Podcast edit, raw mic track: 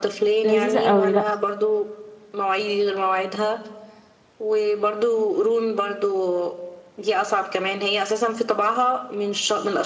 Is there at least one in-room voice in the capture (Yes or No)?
Yes